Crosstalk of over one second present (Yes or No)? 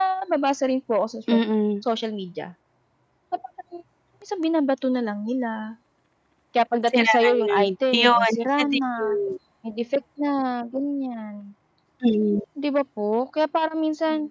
Yes